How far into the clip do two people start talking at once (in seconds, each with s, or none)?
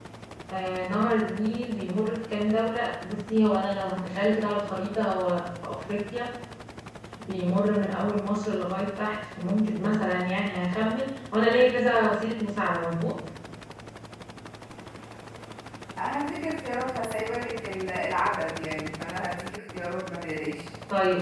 none